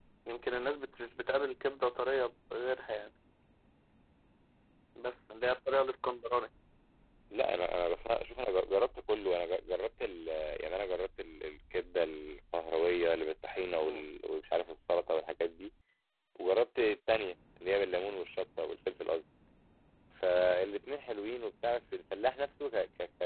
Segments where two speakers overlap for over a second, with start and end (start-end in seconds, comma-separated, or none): none